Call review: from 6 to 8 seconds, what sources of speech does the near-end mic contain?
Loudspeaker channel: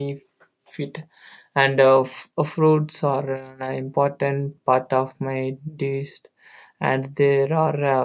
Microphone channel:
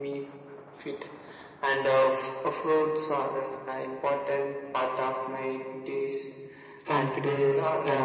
both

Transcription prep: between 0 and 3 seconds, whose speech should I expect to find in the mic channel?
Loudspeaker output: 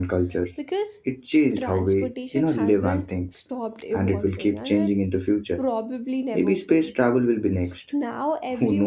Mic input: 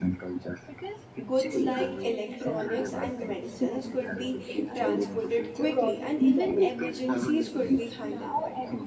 both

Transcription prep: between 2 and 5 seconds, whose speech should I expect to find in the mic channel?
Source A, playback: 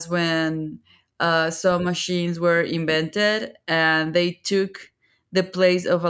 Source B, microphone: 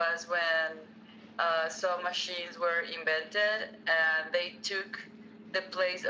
echo only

